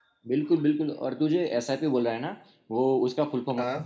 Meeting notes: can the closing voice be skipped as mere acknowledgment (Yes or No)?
Yes